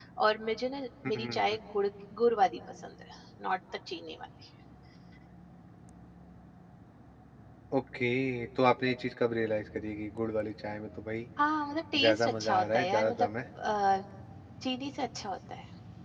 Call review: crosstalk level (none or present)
present